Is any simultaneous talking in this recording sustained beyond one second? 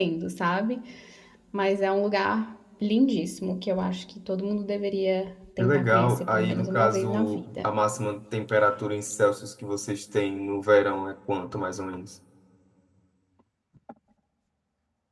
Yes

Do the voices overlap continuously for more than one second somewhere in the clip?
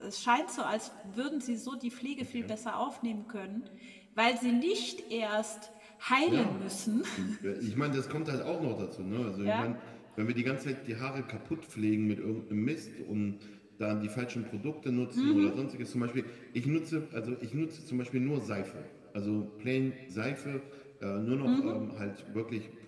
No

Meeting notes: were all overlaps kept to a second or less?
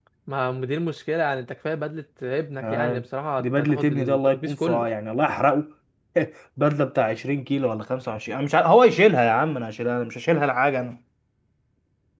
No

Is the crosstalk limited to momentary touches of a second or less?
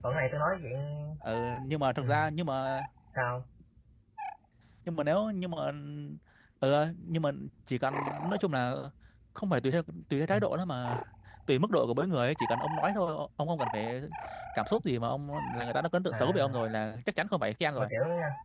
Yes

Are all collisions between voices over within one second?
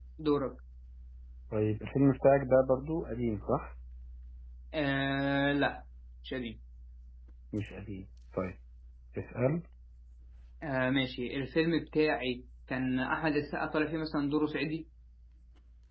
Yes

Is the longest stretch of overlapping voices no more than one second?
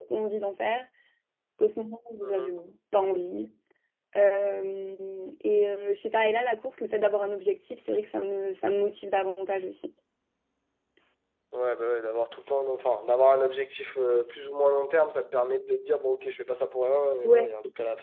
Yes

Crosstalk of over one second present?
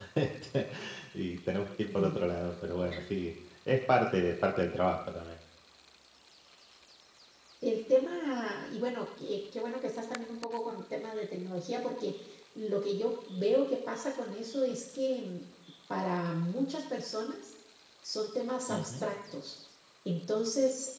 No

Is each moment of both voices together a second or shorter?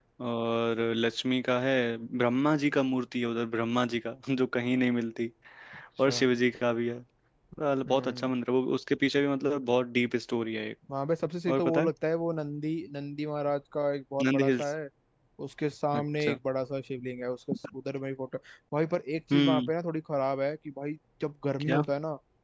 Yes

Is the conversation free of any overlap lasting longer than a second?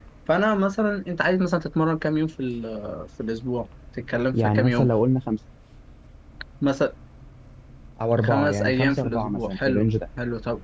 No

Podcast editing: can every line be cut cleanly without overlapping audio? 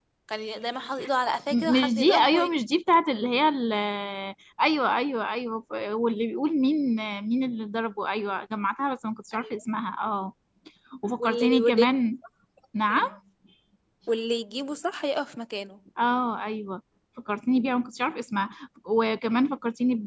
No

